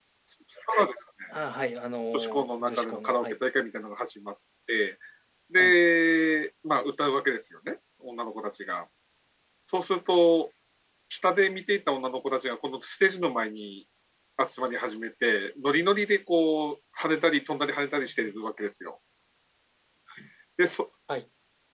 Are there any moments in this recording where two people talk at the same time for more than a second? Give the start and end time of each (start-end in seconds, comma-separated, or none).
2.1-3.4